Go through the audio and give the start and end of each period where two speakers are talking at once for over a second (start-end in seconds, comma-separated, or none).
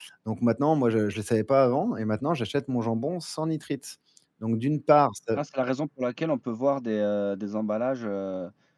none